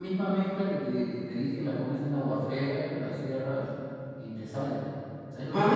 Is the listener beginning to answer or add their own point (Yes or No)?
Yes